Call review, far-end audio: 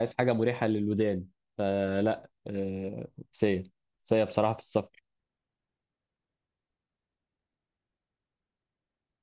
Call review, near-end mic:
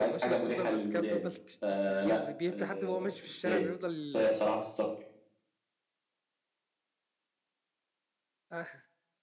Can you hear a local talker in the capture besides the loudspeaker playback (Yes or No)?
Yes